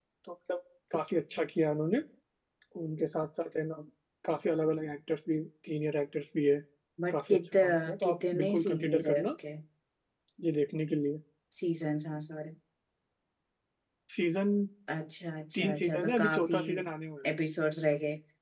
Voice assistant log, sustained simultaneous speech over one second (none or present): present